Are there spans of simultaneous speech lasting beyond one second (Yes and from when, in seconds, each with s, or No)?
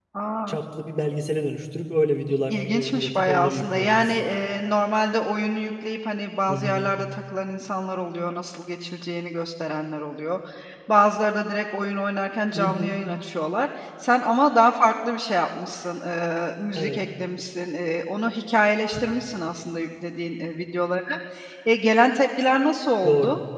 Yes, from 2.5 s